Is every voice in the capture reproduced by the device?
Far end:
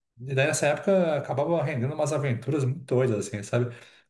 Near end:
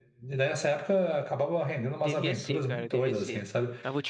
No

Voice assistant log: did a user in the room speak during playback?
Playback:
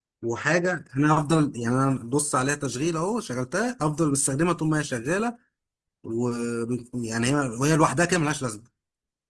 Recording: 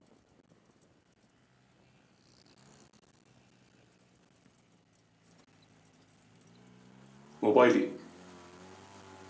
Yes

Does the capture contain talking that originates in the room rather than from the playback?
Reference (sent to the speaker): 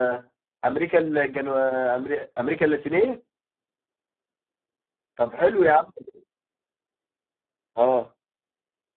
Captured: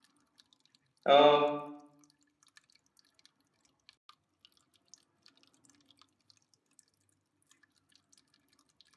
Yes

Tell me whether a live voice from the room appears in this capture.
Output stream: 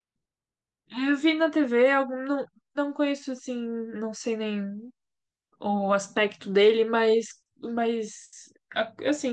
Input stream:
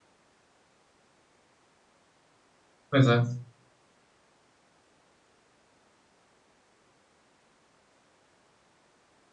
Yes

